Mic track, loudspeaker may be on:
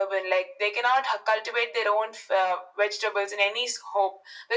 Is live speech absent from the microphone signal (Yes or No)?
Yes